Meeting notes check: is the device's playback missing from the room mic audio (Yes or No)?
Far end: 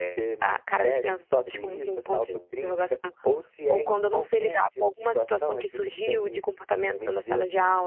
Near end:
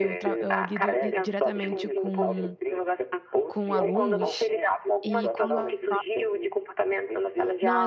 No